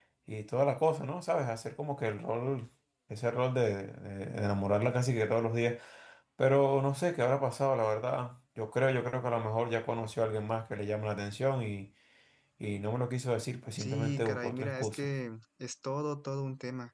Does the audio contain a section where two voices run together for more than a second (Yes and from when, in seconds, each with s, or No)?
Yes, from 13.8 s